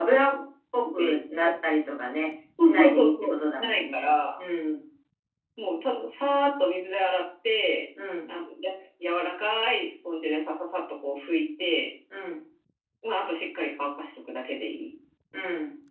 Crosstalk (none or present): present